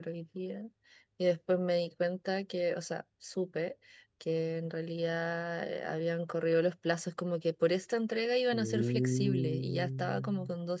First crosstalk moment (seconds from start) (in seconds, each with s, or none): 8.5 s